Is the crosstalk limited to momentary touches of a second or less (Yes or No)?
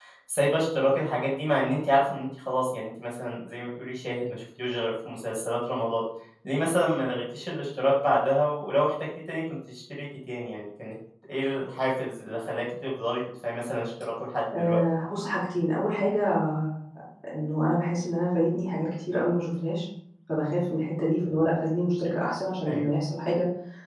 Yes